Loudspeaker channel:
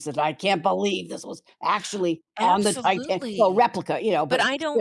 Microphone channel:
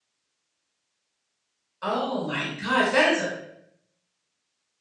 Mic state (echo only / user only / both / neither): user only